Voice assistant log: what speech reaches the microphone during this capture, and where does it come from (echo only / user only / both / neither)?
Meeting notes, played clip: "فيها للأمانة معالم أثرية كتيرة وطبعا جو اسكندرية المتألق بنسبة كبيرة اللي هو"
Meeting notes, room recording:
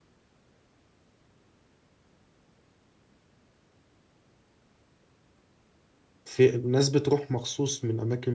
user only